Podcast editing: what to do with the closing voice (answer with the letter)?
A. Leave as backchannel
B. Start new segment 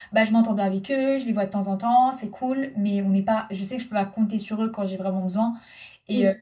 A